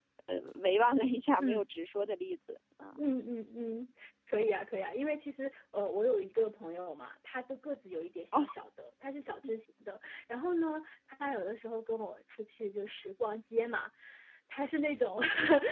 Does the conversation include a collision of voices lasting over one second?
No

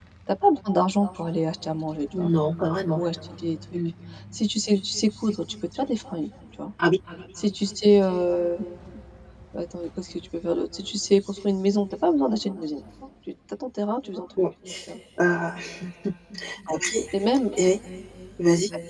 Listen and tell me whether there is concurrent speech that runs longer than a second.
No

